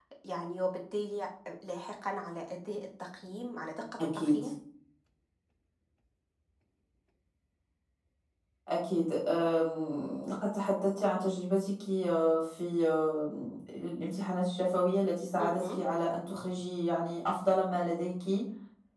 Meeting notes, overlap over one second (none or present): none